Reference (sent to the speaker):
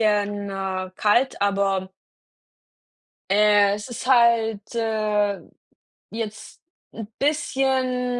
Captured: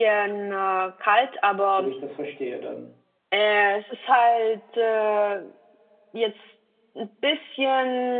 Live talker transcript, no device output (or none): so wie ich das verstehe dann